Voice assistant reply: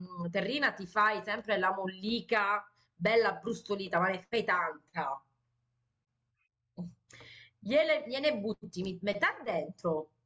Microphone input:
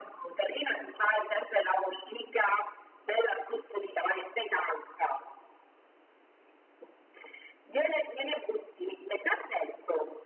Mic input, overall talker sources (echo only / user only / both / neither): echo only